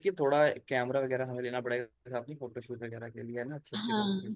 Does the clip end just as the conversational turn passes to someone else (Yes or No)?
Yes